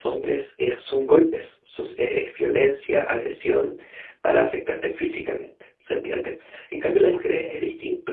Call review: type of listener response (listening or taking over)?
listening